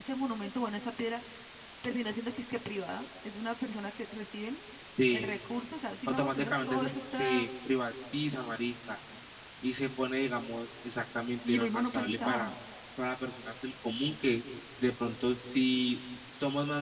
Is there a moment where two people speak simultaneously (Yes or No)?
Yes